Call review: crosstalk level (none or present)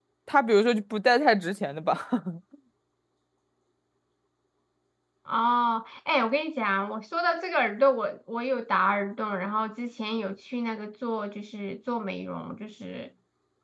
none